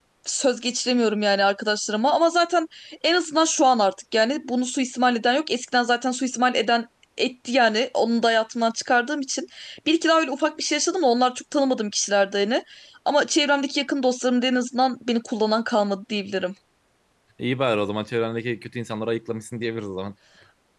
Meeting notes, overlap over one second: none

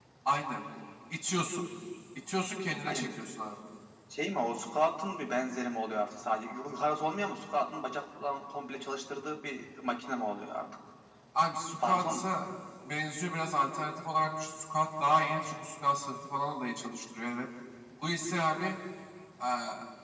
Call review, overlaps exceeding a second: none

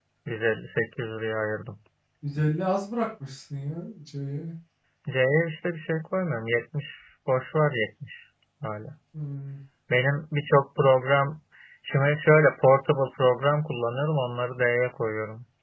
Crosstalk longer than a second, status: none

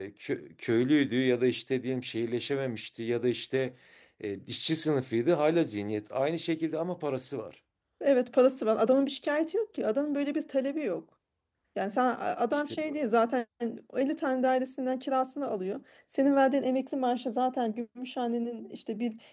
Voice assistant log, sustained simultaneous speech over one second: none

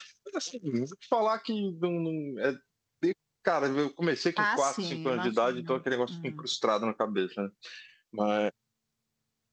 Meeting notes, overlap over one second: present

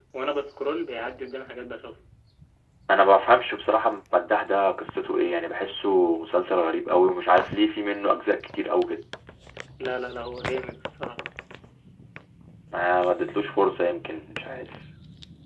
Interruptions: none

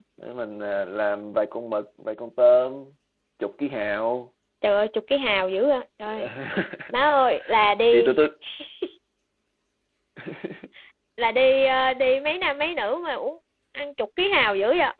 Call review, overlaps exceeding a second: none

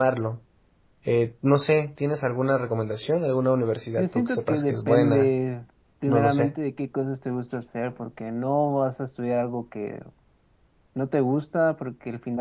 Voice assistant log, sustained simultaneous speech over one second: present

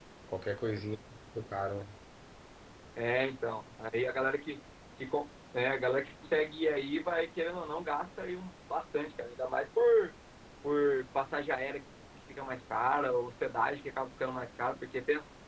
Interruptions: none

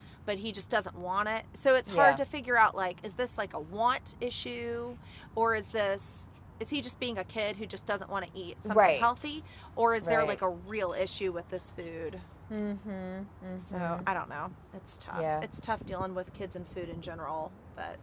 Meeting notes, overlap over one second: none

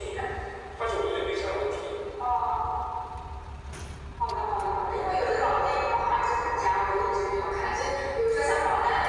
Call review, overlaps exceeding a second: none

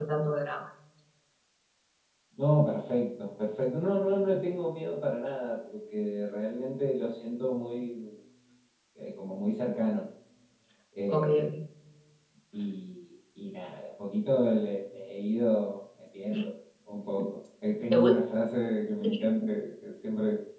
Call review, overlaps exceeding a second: none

